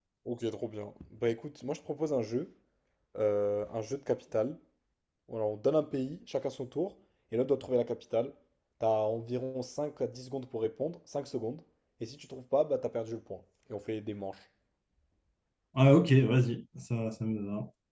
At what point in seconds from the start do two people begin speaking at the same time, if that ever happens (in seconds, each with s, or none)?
none